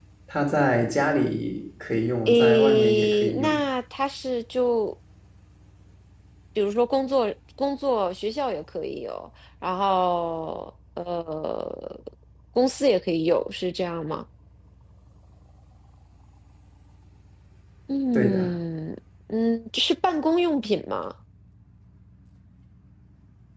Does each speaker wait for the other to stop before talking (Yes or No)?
No